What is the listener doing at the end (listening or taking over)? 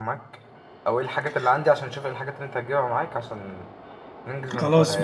taking over